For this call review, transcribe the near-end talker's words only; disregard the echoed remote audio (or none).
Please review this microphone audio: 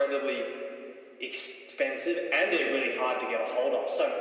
none